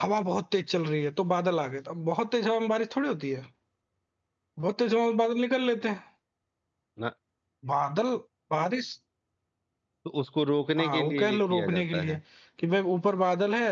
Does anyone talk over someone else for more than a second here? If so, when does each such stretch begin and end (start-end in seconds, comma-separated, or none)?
10.8-12.1